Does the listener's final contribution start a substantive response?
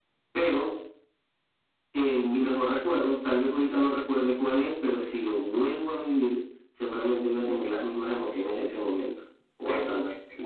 Yes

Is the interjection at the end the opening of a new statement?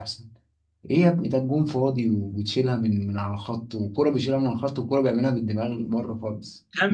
Yes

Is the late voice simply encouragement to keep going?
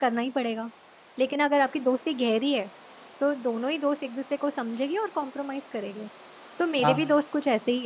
Yes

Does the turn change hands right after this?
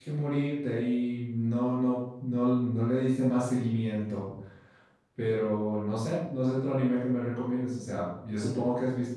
No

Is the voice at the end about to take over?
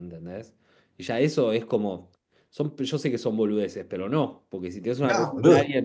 No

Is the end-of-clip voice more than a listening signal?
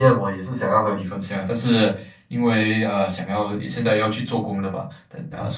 No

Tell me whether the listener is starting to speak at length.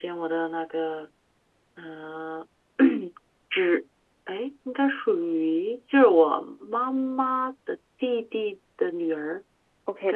Yes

